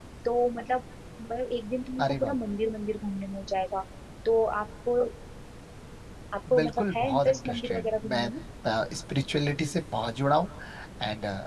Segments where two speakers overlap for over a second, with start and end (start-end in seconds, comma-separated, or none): 6.6-8.3